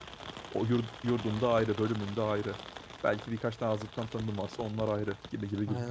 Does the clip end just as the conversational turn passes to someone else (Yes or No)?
Yes